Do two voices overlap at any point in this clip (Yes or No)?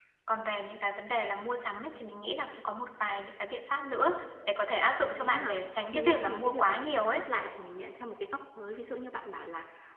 Yes